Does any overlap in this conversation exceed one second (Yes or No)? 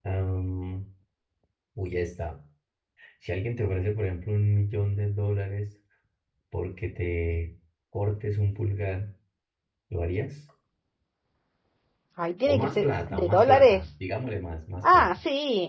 Yes